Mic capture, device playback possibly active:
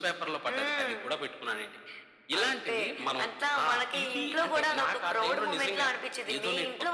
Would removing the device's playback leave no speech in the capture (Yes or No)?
Yes